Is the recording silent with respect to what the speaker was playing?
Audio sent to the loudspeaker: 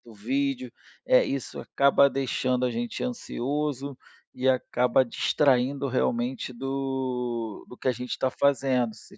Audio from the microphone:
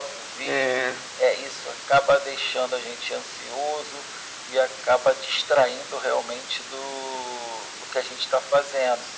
No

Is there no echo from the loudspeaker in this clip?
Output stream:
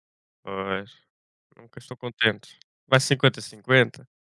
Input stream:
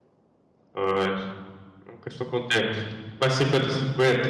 No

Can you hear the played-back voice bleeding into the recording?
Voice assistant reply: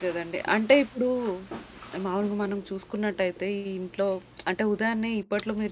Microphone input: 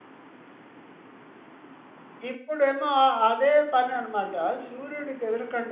No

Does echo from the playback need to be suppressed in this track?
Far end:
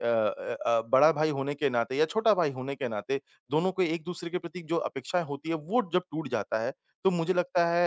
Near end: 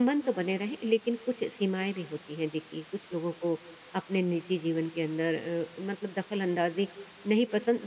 No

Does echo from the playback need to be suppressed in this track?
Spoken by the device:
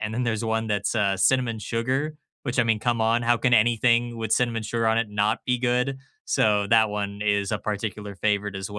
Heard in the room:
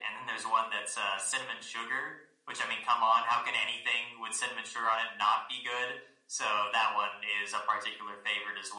Yes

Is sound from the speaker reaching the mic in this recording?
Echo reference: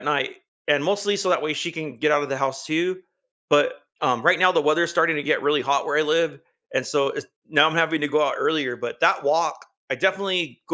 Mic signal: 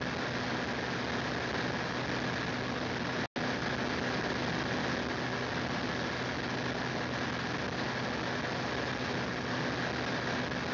No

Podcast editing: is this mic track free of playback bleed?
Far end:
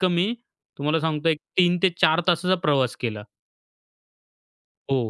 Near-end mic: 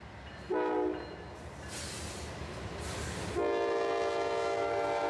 Yes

